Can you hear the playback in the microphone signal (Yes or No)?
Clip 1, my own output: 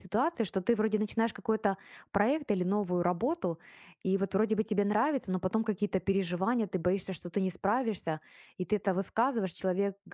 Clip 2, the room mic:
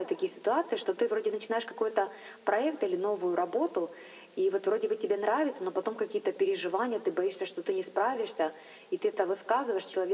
Yes